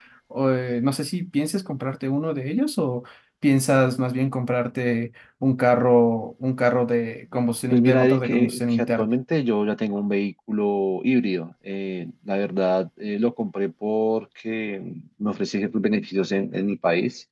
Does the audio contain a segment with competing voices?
Yes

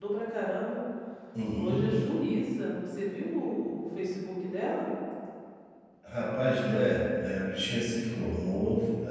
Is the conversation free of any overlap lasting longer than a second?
Yes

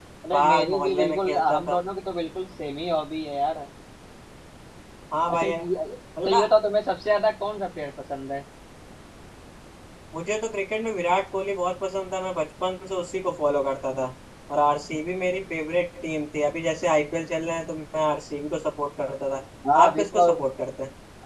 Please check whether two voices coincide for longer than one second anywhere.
Yes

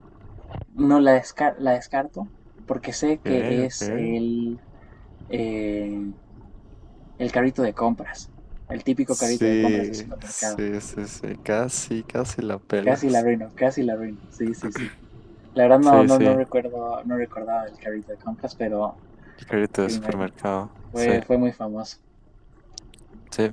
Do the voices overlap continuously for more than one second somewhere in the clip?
Yes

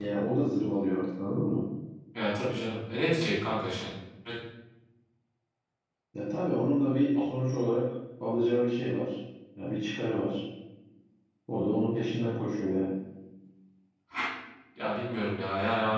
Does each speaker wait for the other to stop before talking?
Yes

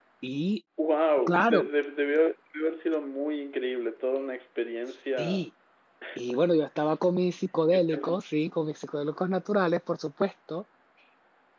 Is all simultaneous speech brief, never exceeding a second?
Yes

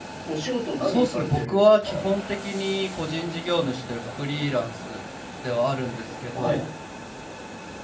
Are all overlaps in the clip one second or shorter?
No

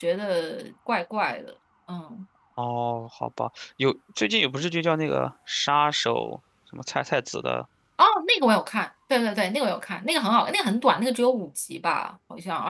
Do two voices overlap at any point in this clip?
No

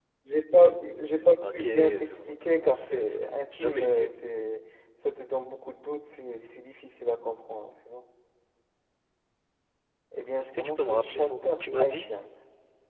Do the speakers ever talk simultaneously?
Yes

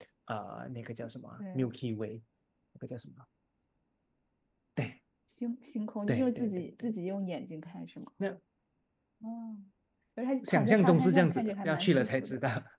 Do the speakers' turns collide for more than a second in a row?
Yes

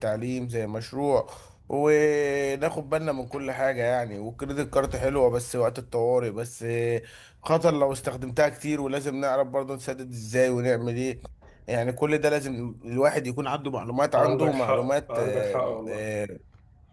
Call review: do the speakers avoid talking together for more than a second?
No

